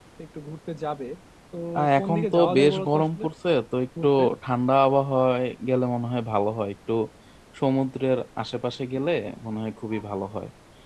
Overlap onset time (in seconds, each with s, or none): 2.0 s